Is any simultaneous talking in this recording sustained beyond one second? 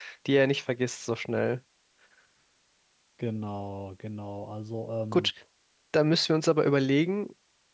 No

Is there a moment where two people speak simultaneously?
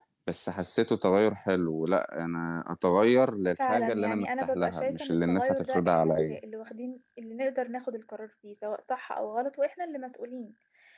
Yes, from 3.6 s

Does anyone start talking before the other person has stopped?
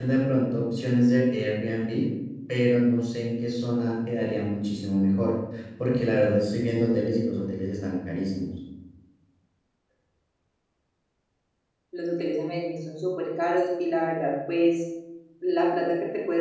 No

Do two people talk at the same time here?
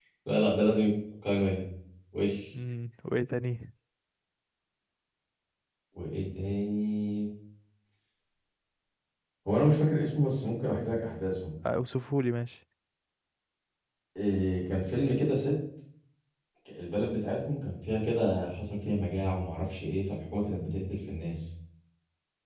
No

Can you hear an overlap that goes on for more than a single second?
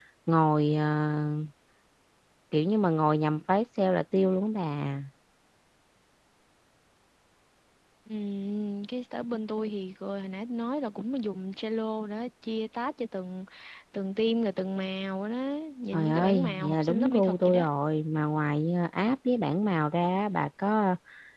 Yes, from 15.9 s

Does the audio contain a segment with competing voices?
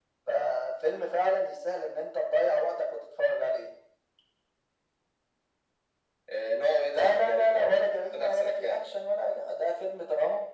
Yes, from 6.9 s

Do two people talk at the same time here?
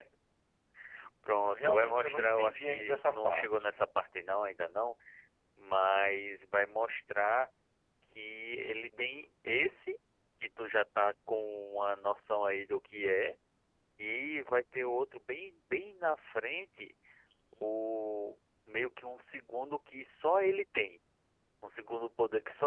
Yes, from 1.4 s

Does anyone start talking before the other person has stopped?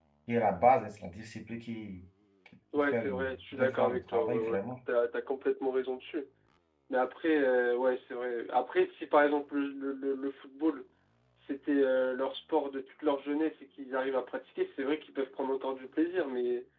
Yes, from 2.8 s

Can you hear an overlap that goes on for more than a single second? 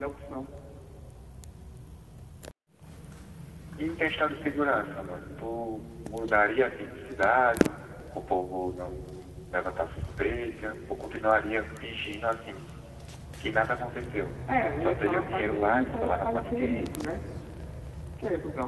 Yes, from 14.8 s

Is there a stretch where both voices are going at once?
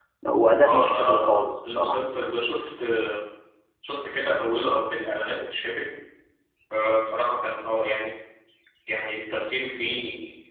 Yes, from 0.7 s

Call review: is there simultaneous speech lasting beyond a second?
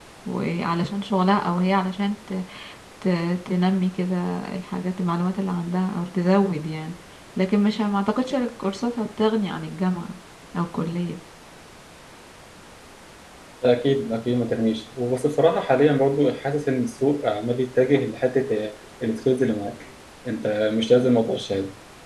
No

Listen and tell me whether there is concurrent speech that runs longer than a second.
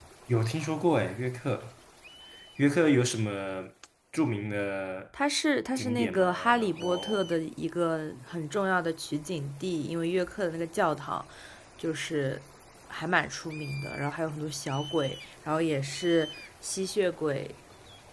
Yes, from 5.8 s

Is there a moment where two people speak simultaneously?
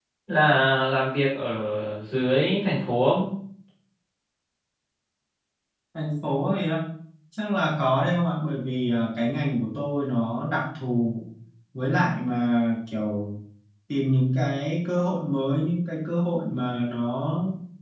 No

